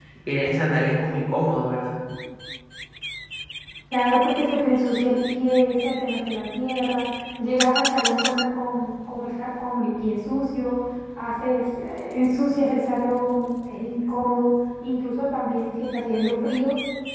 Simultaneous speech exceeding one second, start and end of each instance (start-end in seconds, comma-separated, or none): none